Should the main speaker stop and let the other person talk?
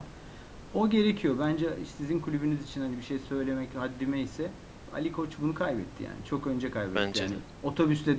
No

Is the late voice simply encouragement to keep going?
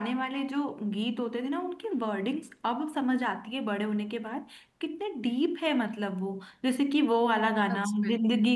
Yes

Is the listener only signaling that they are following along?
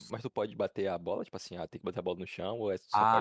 No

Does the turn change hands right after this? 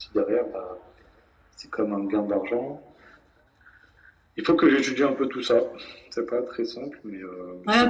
Yes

